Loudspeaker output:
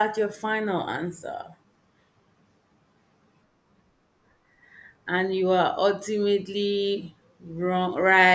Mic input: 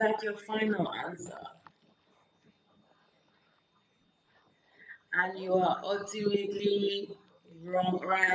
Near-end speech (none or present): none